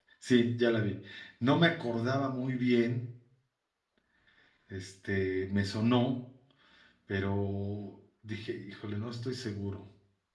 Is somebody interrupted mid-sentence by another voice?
No

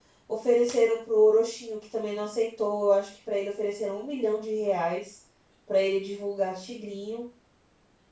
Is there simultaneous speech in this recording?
No

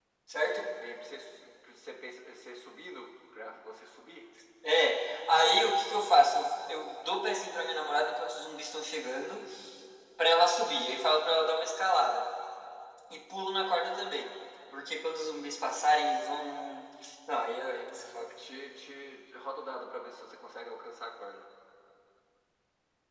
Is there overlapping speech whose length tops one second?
No

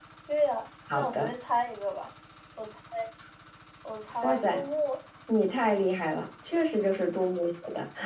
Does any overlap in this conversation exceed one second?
No

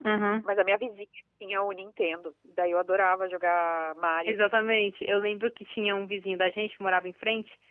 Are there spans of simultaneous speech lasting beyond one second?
No

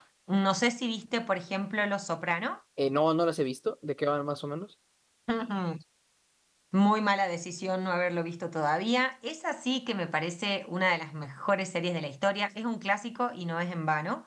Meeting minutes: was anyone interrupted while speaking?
No

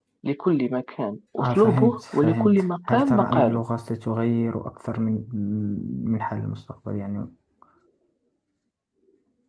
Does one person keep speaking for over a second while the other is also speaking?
Yes, from 1.4 s

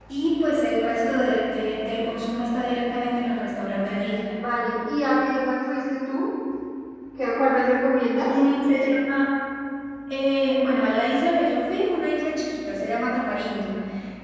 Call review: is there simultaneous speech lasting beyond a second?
No

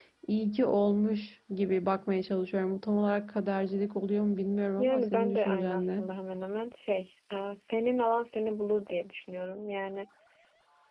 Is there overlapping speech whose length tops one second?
Yes, from 4.8 s

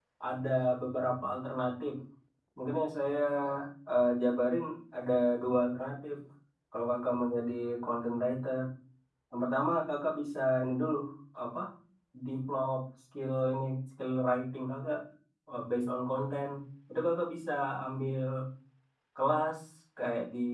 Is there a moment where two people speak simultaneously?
No

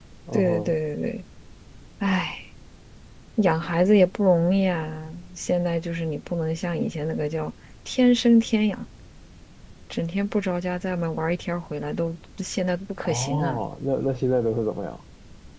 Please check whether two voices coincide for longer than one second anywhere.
No

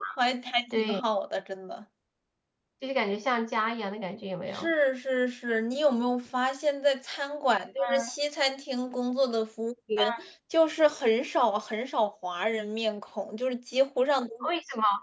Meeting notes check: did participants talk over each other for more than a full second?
No

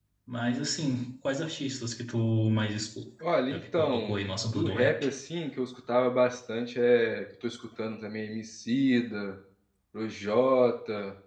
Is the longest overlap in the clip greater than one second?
Yes, from 3.5 s

